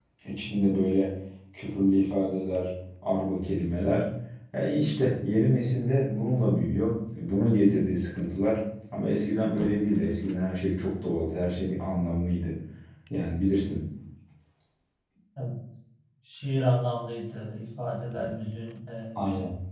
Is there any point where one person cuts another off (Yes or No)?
No